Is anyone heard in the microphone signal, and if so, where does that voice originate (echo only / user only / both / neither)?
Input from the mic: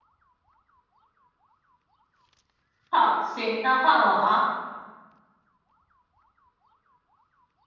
user only